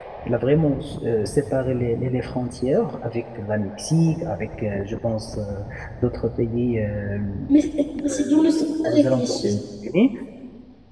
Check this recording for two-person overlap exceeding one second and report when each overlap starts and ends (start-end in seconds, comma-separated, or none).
8.1-9.6